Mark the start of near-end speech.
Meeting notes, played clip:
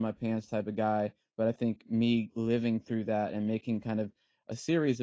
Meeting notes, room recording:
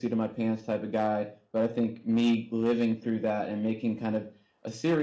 none

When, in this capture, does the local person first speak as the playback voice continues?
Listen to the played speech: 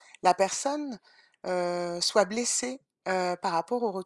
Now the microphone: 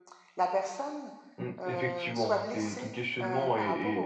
1.4 s

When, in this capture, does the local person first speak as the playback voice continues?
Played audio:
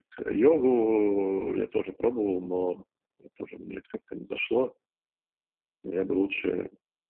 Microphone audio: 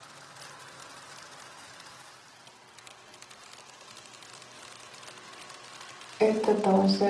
6.2 s

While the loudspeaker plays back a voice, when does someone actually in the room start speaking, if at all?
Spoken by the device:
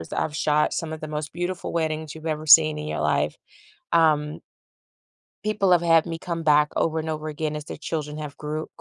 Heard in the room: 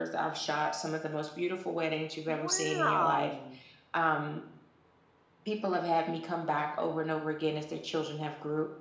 2.3 s

